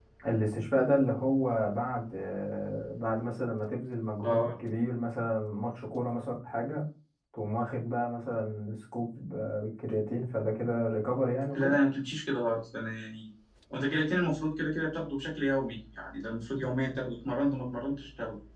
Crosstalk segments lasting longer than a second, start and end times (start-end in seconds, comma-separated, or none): none